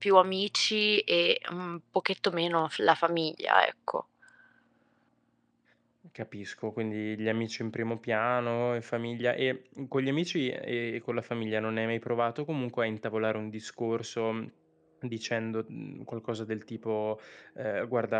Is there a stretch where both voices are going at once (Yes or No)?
No